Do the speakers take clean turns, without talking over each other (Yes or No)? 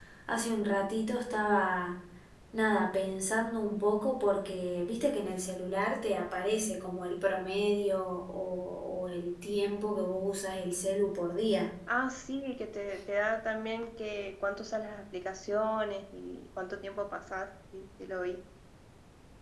Yes